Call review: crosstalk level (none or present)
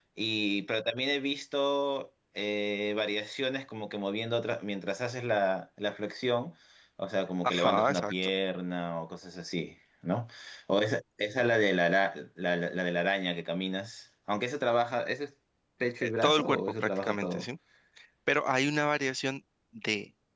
present